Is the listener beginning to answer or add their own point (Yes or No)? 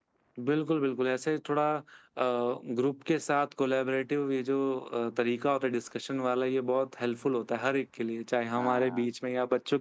No